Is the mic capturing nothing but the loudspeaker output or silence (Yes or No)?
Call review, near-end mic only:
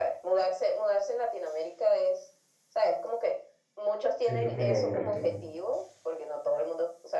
No